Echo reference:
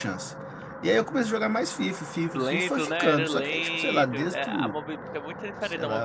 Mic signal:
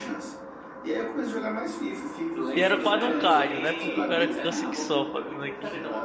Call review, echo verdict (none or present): present